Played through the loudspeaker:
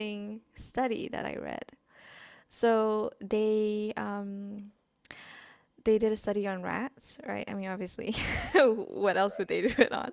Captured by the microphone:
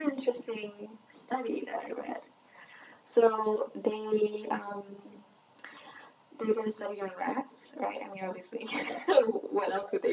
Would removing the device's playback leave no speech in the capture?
Yes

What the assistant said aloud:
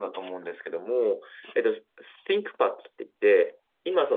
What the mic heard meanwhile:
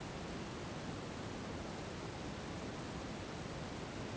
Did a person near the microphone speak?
No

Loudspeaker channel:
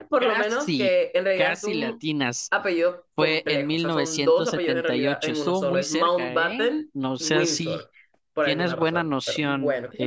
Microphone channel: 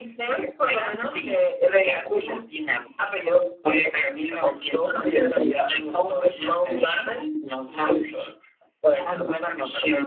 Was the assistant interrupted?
No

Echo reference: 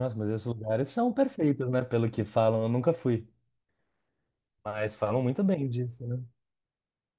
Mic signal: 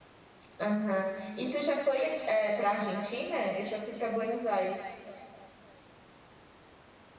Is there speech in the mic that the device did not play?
Yes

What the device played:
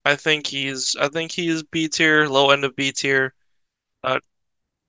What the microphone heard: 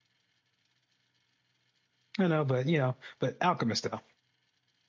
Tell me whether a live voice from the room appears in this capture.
Yes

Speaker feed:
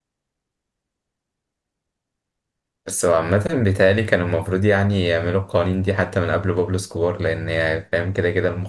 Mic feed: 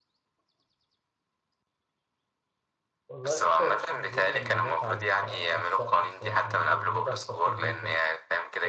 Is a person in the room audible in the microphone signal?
Yes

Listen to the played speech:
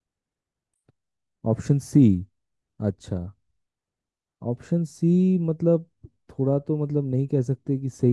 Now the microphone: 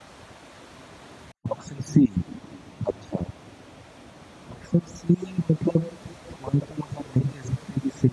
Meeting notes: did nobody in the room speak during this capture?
Yes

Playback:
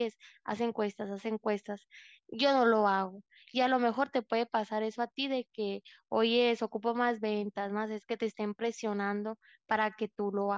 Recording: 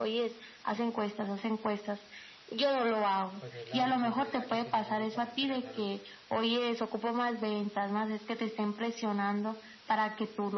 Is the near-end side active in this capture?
Yes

